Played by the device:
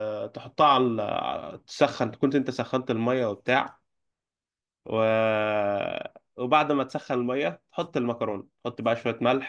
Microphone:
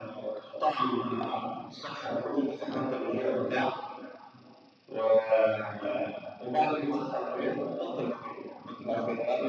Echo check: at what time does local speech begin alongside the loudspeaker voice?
none

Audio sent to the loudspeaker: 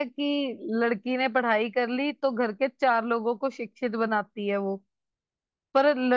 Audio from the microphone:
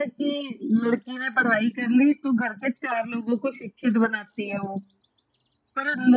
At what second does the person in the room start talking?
none

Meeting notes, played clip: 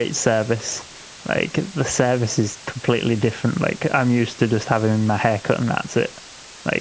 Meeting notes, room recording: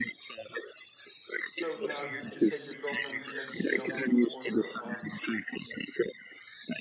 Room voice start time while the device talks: 1.5 s

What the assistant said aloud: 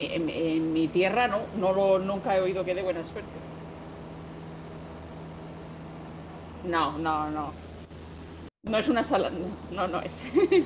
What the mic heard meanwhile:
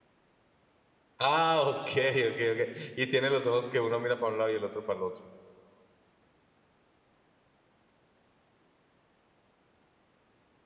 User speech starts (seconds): 1.2 s

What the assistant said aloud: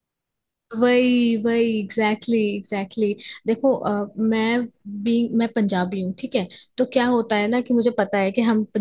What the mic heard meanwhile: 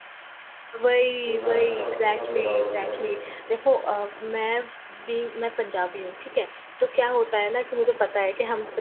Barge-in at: 1.2 s

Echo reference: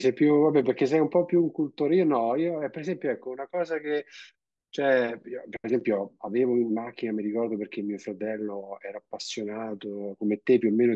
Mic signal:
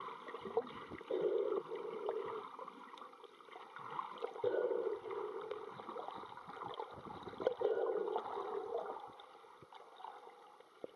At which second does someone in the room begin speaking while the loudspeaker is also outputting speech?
none

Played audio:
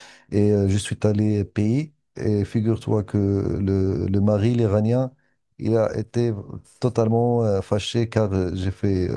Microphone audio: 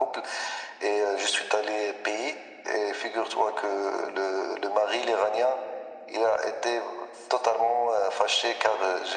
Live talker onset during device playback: none

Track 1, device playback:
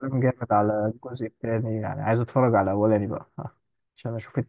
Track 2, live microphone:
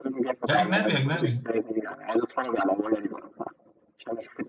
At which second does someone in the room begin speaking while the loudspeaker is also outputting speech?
0.5 s

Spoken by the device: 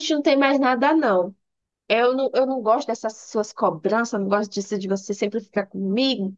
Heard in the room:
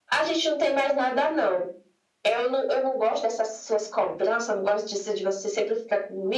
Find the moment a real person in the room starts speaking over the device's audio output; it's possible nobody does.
none

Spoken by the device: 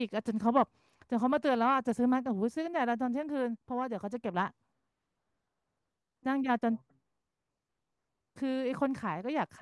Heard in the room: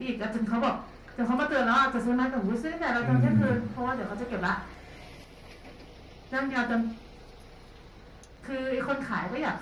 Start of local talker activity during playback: 3.0 s

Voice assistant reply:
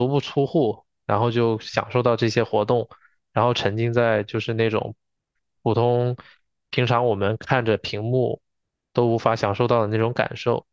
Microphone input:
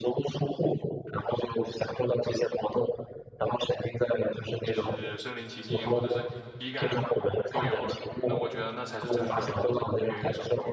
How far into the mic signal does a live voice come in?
4.6 s

